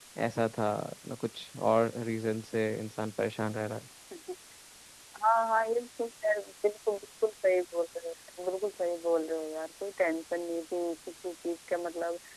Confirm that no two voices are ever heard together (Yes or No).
Yes